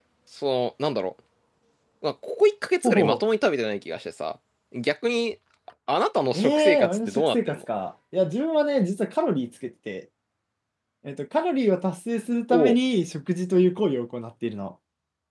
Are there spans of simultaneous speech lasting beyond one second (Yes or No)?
Yes